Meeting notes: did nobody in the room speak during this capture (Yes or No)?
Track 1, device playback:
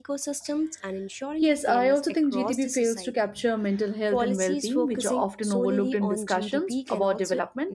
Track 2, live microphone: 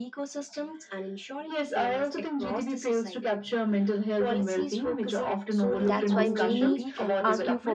No